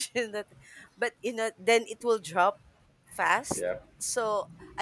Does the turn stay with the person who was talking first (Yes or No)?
Yes